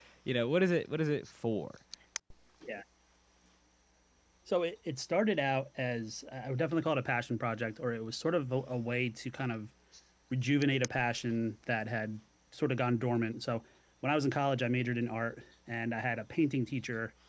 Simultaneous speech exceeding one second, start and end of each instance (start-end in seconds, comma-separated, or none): none